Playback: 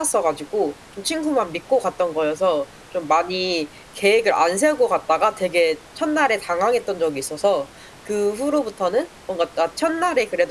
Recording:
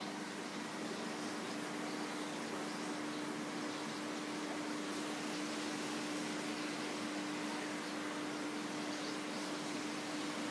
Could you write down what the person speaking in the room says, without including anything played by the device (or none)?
none